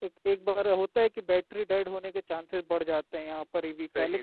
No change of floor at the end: Yes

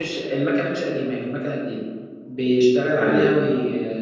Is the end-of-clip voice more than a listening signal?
No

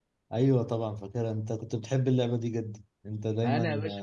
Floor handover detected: Yes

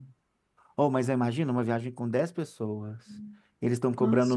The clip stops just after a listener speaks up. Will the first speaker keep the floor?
Yes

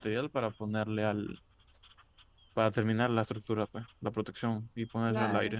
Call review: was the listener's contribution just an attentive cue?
Yes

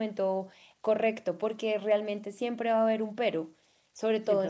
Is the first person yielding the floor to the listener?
No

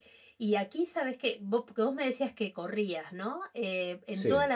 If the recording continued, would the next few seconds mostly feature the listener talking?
No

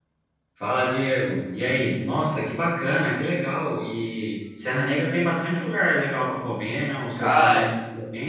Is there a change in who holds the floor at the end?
Yes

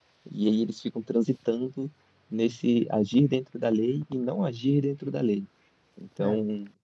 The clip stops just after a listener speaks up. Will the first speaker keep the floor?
Yes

